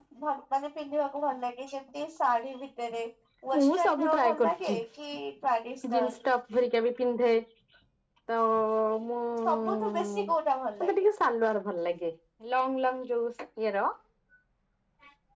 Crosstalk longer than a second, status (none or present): present